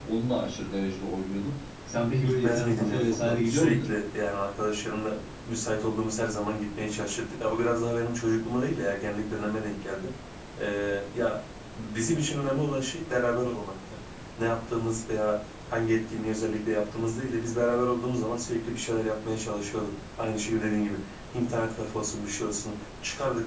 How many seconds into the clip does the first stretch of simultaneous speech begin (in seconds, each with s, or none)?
2.2 s